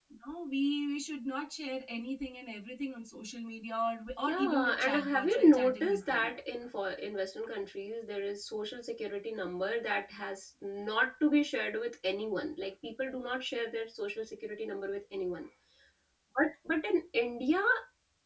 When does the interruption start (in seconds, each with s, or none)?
4.3 s